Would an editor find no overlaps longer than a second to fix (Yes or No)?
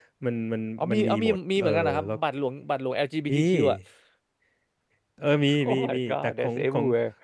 No